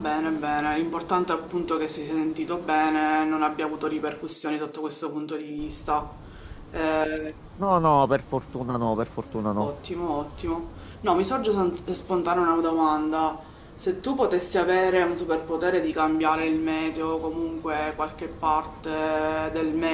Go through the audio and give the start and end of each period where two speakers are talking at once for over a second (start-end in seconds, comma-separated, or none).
none